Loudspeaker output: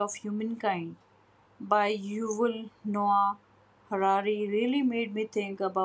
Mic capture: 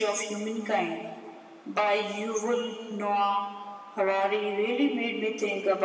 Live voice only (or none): none